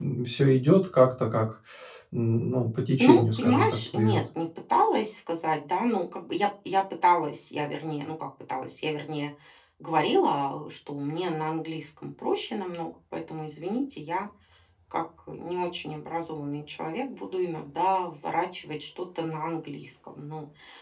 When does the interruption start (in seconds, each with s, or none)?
3.0 s